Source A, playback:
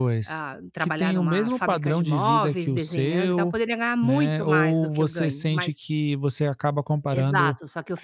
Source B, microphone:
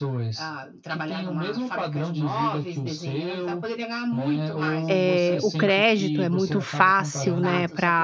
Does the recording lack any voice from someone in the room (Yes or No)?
No